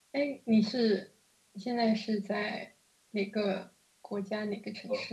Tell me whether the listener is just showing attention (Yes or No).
No